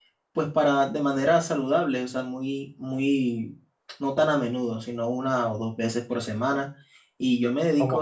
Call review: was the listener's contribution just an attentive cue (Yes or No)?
Yes